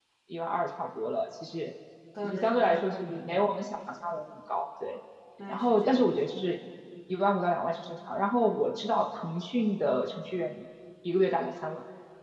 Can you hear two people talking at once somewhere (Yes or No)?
Yes